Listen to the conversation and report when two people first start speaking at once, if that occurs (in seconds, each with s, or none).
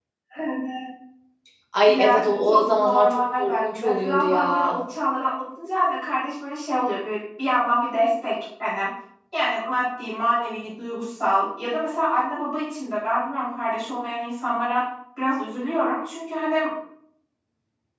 1.9 s